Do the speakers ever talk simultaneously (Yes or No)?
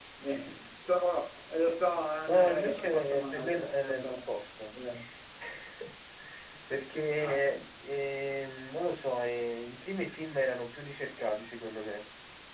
Yes